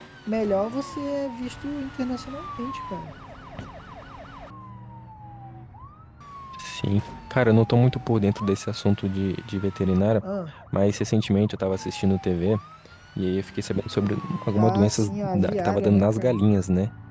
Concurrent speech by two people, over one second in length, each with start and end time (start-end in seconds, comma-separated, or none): 14.6-16.4